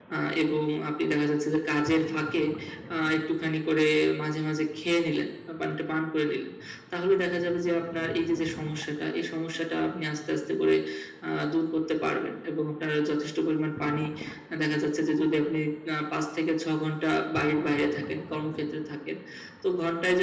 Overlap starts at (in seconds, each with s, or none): none